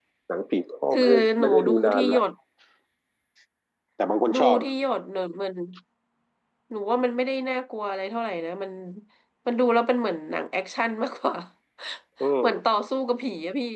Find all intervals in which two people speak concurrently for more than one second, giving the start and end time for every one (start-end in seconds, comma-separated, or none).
0.9-2.2